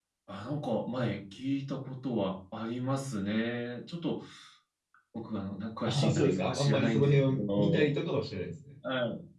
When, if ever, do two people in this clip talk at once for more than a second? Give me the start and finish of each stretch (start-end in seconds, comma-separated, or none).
5.9-8.0